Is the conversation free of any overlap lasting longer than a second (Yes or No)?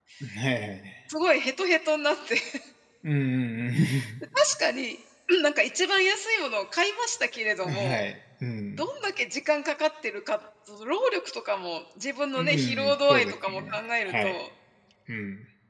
No